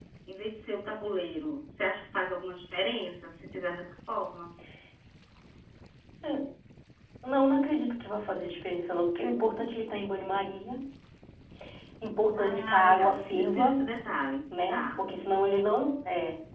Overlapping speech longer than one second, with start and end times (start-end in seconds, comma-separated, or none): 12.4-13.8